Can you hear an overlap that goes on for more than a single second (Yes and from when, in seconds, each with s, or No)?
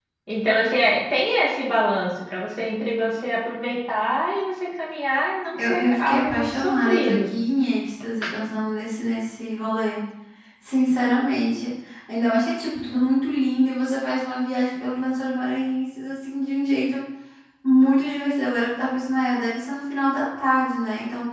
Yes, from 5.5 s